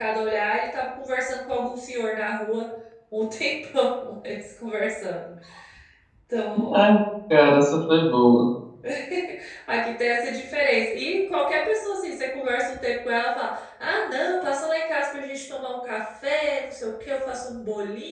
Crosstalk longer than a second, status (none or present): none